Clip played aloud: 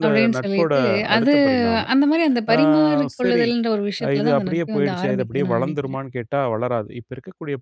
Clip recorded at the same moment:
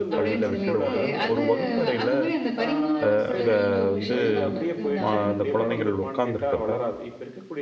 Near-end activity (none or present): present